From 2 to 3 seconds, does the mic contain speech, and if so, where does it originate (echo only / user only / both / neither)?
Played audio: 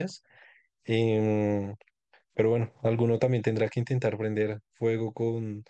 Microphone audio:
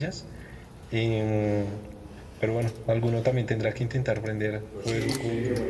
echo only